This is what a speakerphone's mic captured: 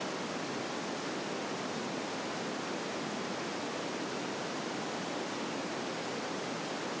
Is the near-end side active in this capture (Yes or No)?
No